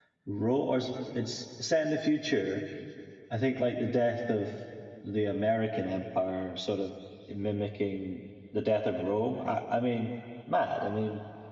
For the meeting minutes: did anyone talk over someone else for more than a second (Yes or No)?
No